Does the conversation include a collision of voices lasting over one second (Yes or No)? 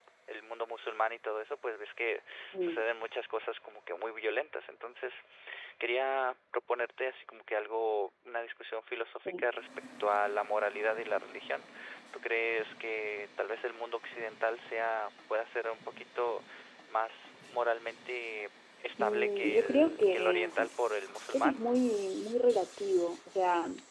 Yes